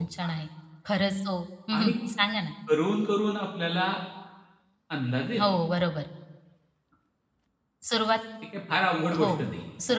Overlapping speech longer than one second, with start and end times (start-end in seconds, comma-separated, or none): none